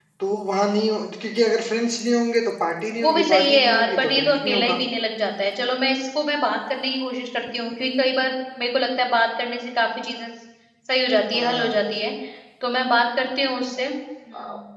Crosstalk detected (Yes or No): Yes